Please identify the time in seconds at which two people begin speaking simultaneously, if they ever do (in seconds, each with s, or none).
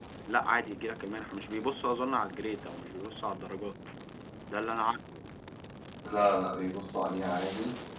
none